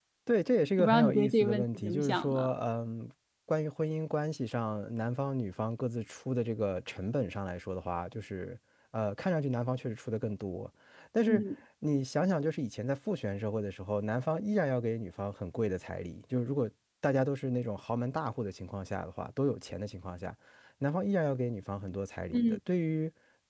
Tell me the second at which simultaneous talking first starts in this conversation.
0.8 s

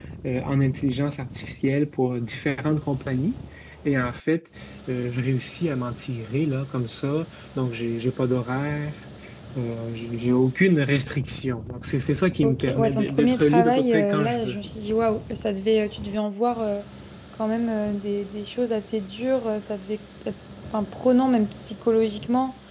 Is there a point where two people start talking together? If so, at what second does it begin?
12.4 s

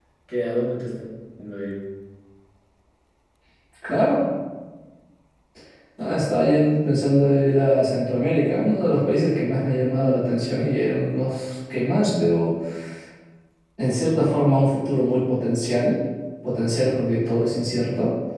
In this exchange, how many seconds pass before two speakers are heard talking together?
none

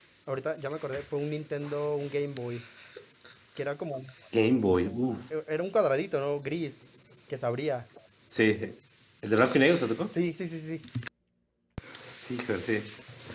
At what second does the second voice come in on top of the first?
none

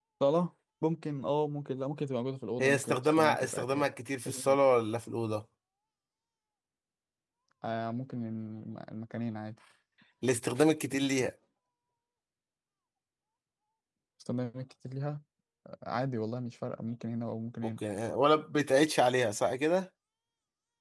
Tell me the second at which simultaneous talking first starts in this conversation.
2.6 s

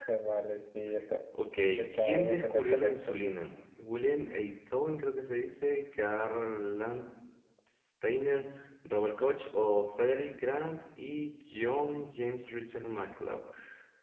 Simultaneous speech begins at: 1.9 s

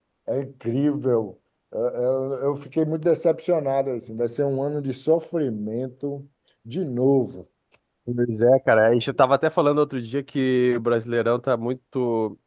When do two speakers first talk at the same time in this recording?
none

